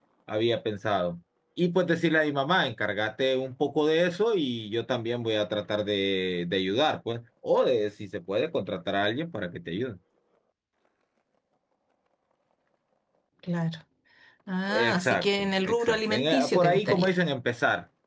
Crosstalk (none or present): present